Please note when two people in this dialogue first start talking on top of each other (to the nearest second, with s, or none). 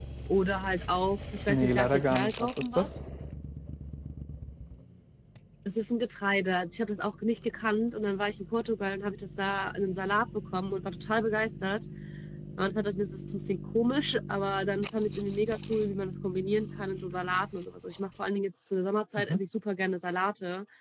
1 s